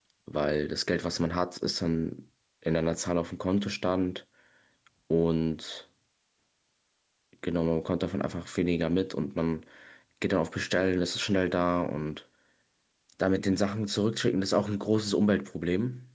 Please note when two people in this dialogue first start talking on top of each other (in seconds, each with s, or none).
none